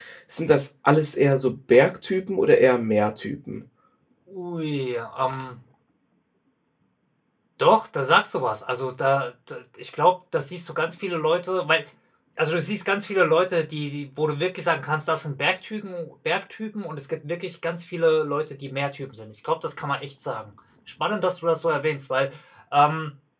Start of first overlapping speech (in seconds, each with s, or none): none